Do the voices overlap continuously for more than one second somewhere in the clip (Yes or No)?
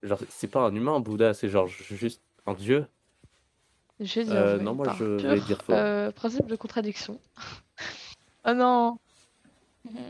Yes